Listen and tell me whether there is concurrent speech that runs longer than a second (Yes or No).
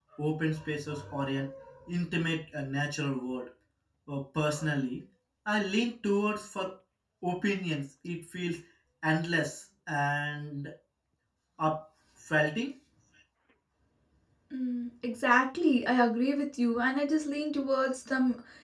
No